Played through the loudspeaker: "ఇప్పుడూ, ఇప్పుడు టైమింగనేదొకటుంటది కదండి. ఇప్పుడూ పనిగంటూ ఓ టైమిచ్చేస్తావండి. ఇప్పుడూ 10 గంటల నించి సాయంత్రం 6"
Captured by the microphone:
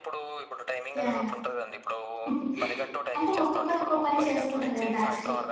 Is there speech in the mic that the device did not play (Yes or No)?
Yes